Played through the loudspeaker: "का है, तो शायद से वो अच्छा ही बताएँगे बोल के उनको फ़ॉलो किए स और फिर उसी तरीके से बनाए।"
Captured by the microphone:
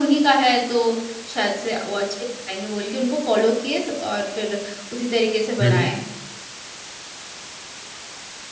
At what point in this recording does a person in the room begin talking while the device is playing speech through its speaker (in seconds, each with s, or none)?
5.6 s